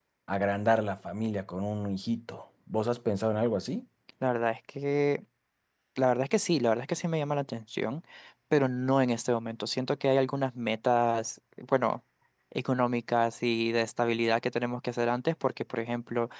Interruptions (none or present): none